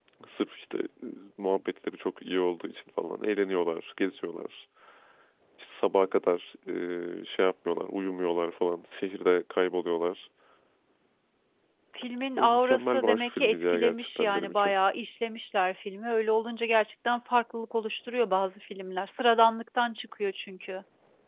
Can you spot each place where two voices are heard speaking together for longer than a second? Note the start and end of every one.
12.4-14.7

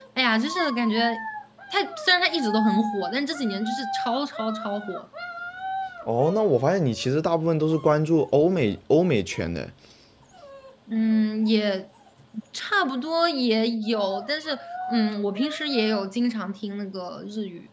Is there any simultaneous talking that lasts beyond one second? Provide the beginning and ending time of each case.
none

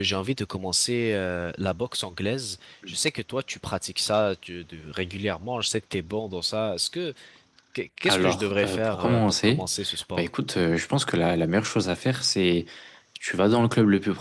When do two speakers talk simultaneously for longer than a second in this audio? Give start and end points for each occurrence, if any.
8.0-9.6

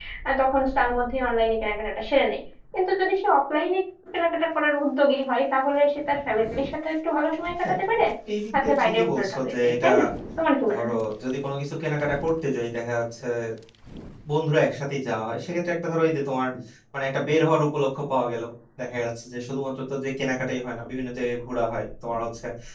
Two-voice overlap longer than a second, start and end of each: 8.6-9.8

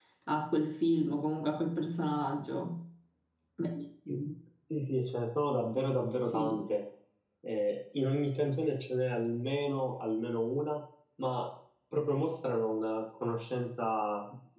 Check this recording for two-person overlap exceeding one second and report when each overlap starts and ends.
none

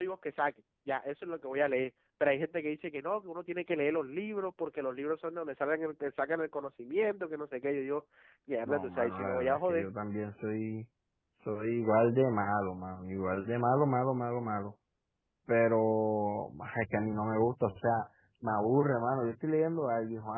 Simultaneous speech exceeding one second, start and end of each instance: 8.7-9.9

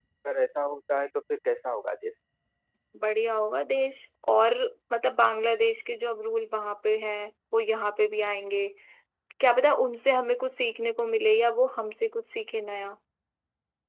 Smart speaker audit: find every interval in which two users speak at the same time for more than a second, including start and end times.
none

